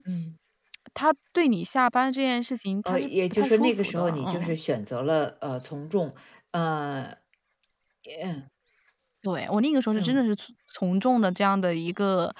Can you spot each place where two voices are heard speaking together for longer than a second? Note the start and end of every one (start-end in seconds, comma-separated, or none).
2.9-4.5